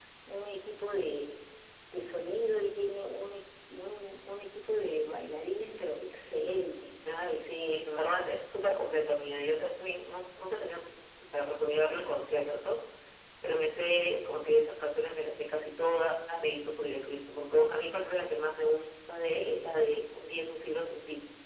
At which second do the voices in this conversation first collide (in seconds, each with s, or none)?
none